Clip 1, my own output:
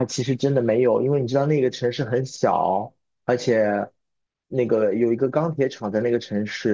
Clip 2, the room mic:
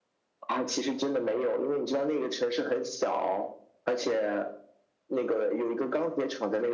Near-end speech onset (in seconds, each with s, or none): none